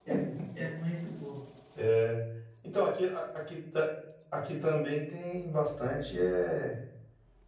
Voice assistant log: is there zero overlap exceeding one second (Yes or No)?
Yes